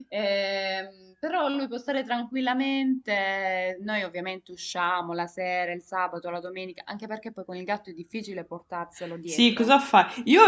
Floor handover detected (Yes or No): Yes